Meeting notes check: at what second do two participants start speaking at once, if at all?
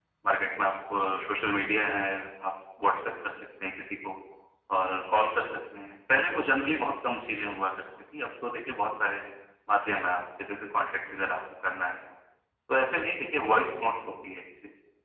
none

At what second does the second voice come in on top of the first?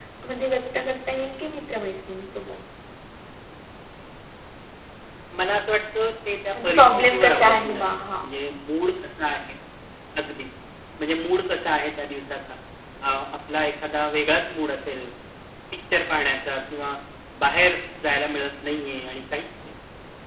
7 s

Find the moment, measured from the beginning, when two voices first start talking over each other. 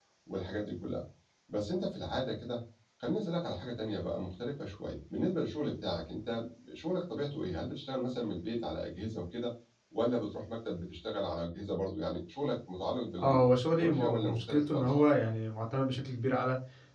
13 s

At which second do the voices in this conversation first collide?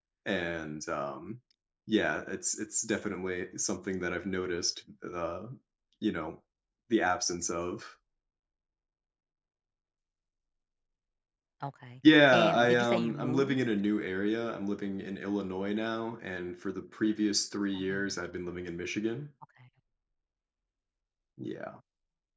12 s

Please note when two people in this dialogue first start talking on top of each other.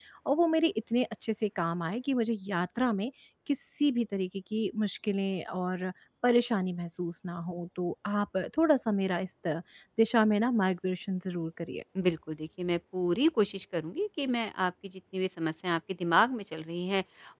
none

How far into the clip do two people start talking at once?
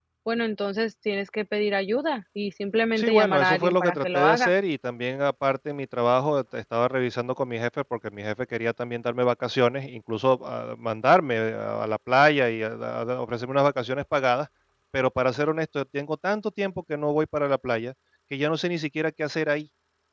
3 s

